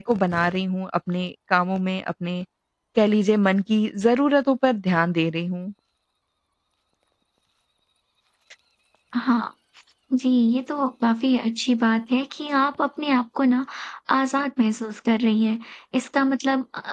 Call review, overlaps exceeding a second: none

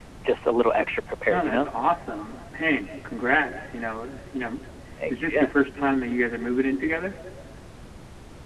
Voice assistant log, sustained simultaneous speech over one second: none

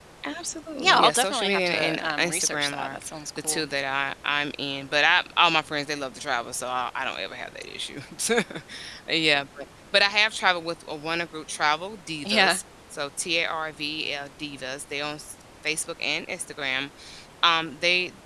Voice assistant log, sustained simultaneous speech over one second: present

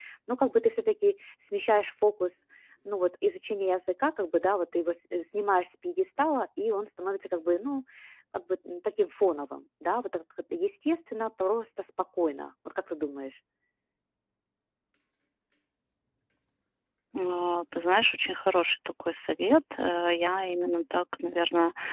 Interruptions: none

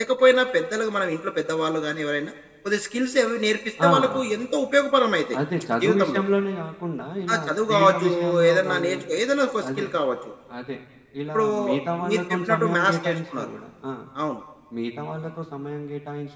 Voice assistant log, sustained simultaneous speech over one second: present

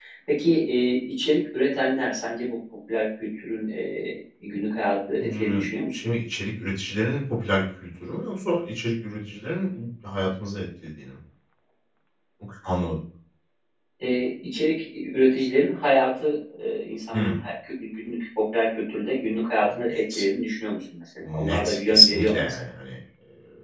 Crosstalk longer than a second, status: present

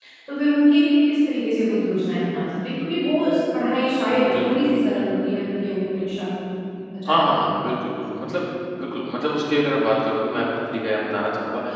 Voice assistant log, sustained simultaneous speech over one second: none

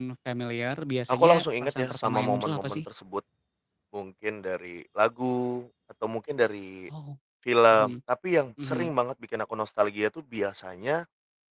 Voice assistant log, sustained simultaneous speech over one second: present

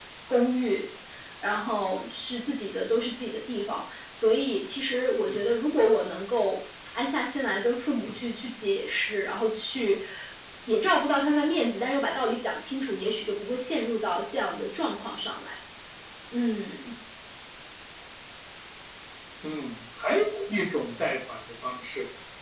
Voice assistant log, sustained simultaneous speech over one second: none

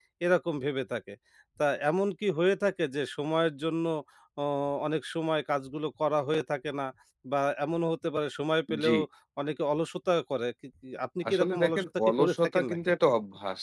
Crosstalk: present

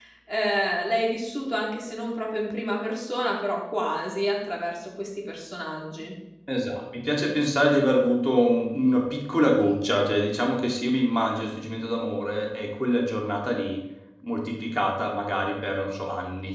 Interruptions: none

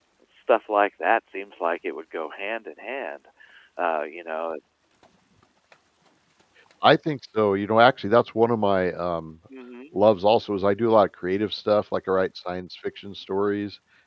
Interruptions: none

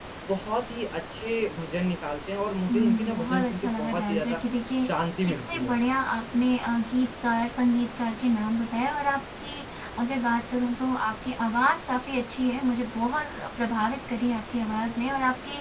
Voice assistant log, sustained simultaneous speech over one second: present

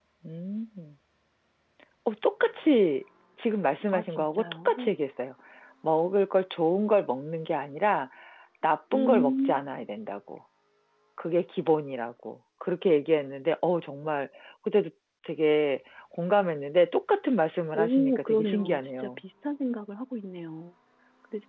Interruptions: present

